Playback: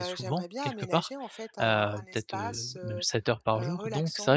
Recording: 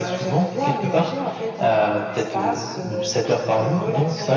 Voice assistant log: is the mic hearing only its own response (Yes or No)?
Yes